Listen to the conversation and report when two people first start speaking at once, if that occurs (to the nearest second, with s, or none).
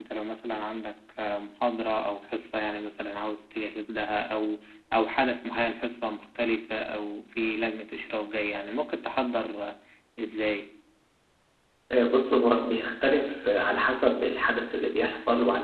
none